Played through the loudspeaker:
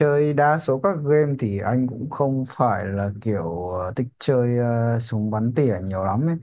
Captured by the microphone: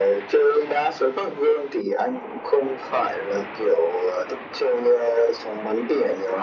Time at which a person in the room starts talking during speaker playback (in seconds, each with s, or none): none